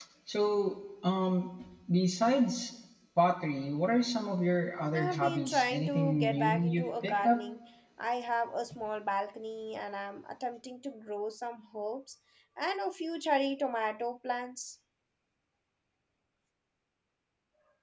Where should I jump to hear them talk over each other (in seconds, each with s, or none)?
4.9 s